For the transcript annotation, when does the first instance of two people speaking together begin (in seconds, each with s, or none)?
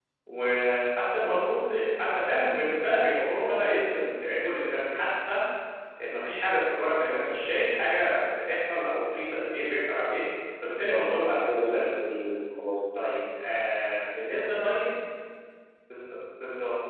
10.9 s